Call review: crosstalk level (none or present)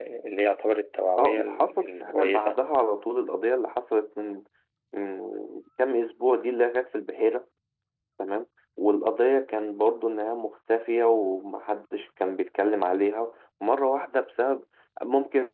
present